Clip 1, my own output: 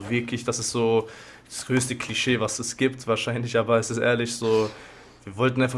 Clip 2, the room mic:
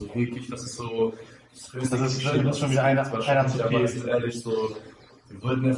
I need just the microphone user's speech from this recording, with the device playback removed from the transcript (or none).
das ist, das ist schon wieder einer einer zu viel